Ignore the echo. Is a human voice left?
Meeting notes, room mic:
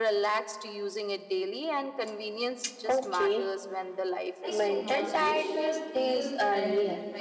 Yes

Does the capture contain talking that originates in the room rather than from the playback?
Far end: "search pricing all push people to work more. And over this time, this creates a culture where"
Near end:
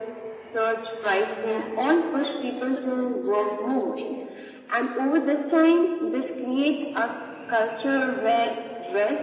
Yes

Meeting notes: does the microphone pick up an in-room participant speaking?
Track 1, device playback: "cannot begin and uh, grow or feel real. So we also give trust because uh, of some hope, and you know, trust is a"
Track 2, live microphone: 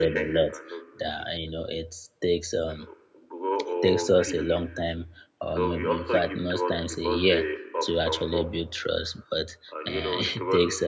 Yes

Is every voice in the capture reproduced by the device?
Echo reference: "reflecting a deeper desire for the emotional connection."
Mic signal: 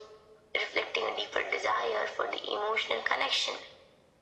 Yes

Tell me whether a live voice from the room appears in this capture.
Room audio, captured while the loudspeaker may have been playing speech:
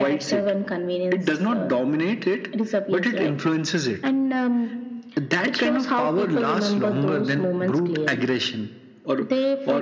No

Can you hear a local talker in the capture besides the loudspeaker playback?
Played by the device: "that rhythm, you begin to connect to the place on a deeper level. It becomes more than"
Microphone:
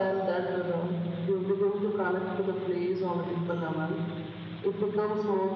No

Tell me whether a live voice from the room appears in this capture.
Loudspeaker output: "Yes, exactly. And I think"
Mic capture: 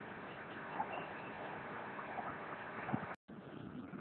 No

